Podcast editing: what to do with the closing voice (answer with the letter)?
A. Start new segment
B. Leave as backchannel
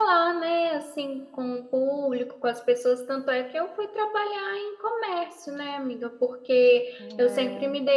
B